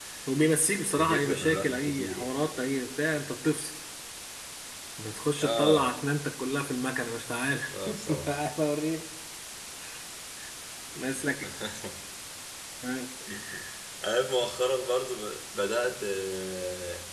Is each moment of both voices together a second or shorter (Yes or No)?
No